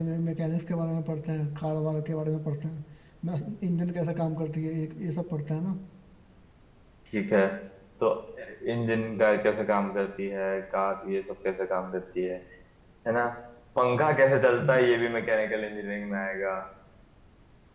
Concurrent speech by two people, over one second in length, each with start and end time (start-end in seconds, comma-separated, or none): none